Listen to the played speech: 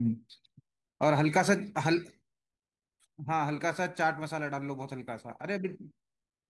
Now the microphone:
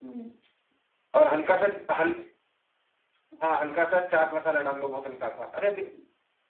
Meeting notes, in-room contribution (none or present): none